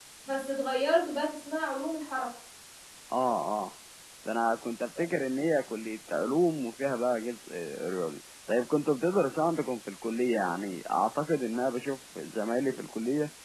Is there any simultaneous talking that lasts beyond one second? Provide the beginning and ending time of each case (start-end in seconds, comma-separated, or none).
none